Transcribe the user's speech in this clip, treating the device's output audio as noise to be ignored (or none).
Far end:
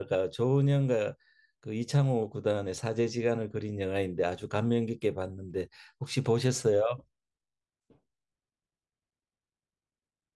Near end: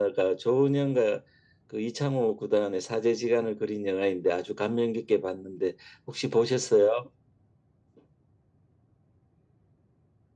none